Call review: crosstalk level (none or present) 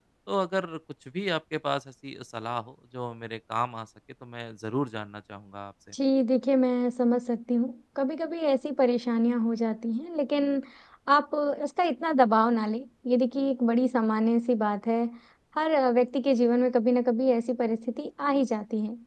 none